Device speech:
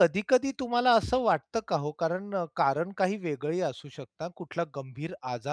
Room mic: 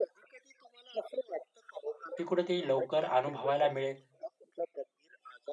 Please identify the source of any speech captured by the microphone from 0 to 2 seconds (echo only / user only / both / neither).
echo only